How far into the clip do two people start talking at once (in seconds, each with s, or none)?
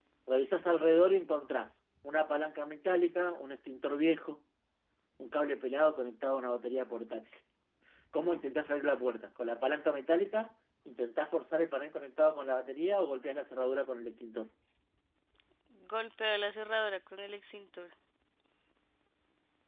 none